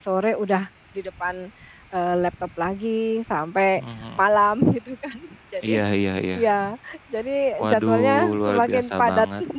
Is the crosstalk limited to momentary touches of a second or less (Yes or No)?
No